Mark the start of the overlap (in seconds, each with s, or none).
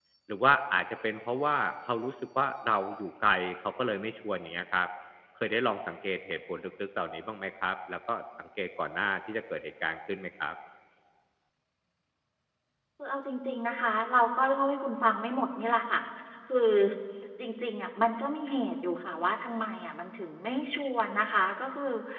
none